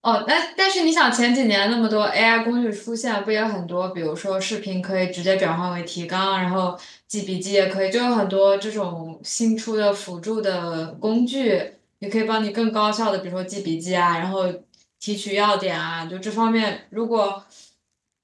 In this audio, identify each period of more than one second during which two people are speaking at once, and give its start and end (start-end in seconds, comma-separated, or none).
none